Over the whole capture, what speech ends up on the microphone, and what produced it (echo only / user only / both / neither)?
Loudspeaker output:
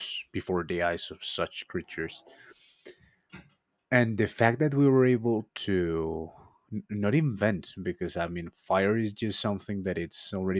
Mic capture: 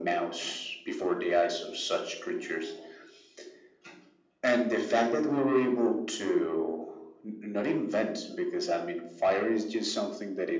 echo only